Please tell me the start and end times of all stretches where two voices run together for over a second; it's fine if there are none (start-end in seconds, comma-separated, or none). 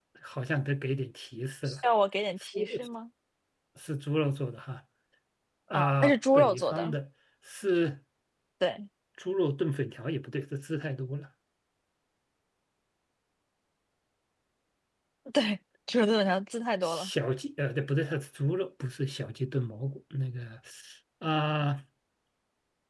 5.7-7.0